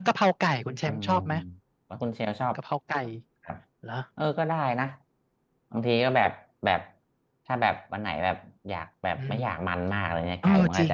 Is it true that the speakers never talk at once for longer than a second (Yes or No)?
Yes